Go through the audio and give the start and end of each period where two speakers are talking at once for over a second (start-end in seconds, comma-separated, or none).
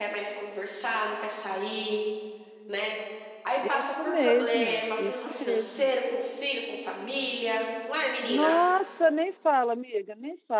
3.6-5.9